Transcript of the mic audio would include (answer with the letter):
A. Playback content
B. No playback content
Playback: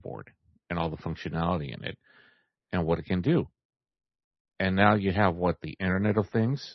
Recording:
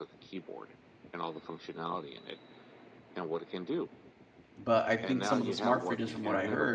A